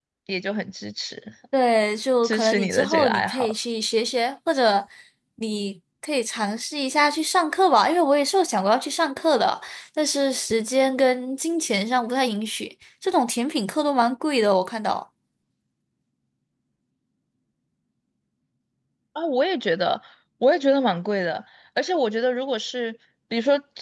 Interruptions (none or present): present